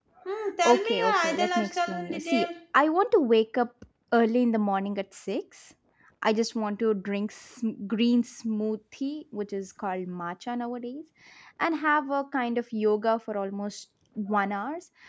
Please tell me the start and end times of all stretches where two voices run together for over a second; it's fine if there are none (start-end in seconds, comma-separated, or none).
0.7-2.5